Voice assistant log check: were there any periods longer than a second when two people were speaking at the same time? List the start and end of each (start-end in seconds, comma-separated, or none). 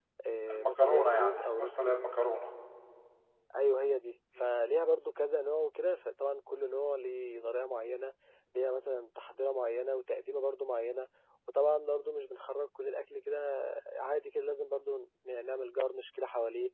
0.5-1.9